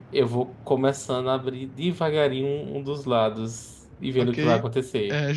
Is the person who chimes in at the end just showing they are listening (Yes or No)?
No